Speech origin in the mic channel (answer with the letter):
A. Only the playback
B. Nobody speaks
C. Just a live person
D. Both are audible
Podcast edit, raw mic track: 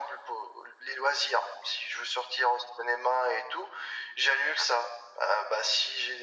A